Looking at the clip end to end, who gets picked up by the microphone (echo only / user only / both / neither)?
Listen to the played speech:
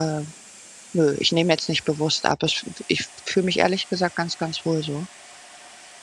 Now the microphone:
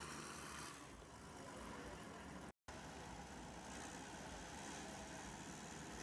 neither